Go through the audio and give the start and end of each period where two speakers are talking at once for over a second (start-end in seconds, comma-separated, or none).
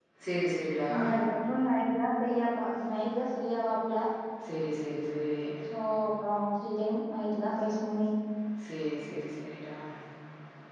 none